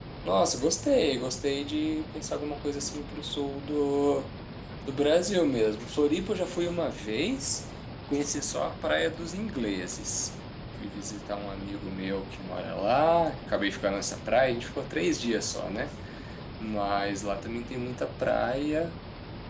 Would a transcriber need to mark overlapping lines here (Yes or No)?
No